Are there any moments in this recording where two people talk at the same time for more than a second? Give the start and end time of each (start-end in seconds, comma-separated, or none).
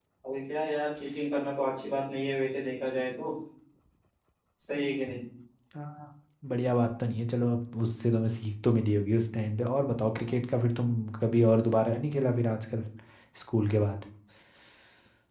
none